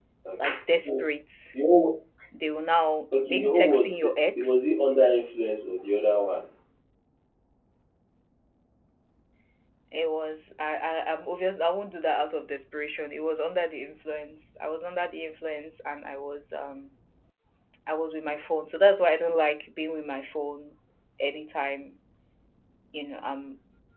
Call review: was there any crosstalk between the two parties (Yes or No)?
Yes